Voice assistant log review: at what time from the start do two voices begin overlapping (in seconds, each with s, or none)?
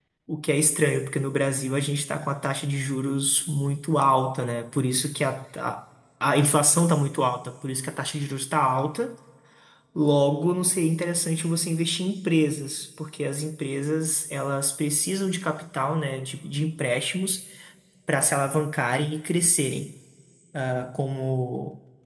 none